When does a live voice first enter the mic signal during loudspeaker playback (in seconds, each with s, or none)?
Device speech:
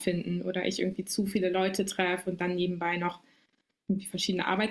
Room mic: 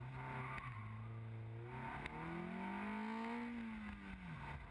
none